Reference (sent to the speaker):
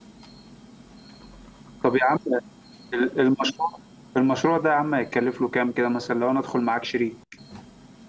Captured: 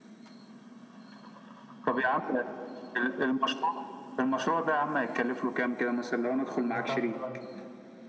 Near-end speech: present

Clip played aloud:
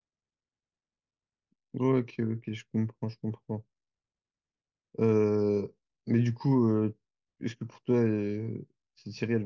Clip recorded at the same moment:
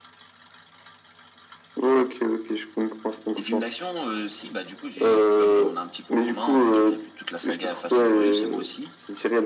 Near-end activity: present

